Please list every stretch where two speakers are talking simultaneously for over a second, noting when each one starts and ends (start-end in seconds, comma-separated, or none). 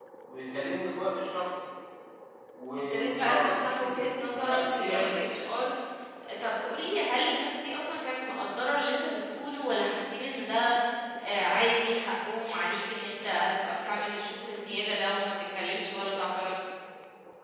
2.9-5.2